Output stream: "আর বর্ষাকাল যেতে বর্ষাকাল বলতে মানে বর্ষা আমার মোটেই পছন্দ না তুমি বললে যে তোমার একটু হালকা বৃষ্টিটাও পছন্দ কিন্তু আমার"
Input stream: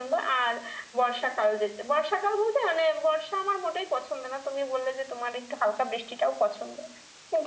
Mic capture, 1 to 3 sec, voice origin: echo only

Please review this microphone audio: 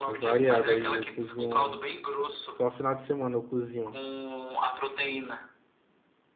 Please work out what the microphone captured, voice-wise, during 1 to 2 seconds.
both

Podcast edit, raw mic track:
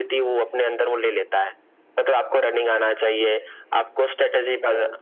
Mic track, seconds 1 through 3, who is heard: echo only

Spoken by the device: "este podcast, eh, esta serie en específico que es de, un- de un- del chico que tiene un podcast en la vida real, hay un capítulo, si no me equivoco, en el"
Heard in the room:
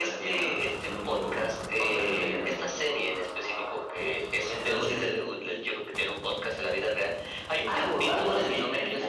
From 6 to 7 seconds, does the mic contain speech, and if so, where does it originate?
echo only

